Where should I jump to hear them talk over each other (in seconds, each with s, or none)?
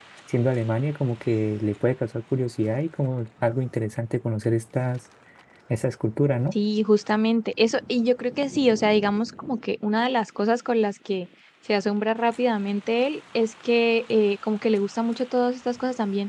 none